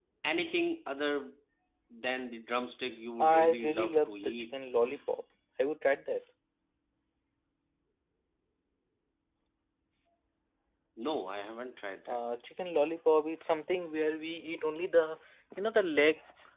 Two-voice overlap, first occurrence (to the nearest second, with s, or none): 3 s